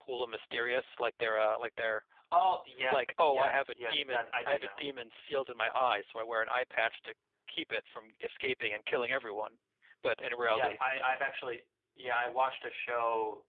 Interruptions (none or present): present